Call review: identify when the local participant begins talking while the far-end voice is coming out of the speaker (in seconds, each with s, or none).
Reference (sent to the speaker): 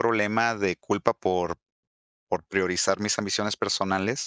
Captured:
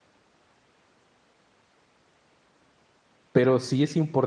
3.3 s